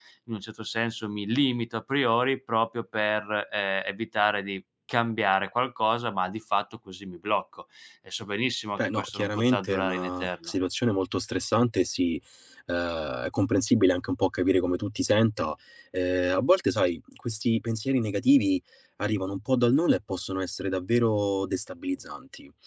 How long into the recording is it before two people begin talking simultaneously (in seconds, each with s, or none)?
8.8 s